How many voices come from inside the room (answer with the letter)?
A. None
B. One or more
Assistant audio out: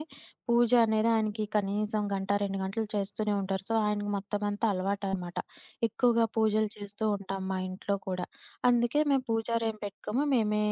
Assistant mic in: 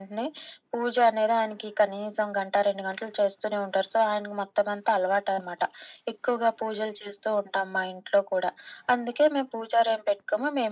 A